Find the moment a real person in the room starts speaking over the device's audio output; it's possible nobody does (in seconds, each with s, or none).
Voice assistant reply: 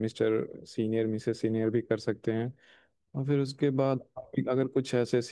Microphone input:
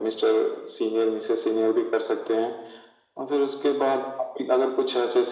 none